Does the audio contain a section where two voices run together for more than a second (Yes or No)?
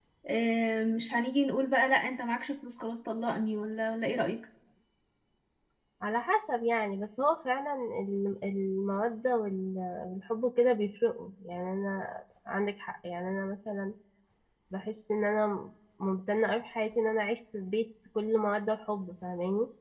No